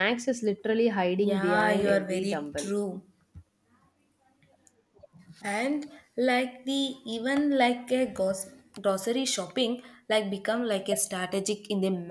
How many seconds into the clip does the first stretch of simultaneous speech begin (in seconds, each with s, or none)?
1.2 s